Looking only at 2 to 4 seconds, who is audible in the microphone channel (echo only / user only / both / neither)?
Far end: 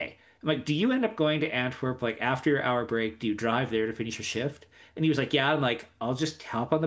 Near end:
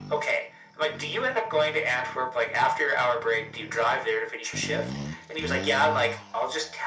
echo only